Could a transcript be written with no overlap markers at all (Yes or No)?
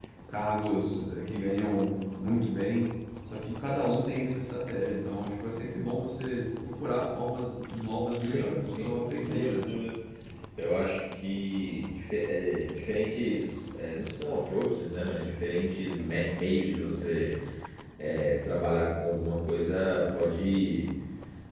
No